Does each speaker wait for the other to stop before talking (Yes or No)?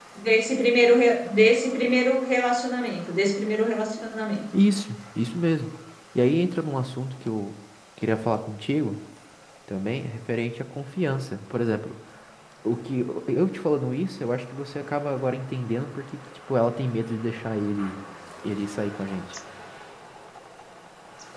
Yes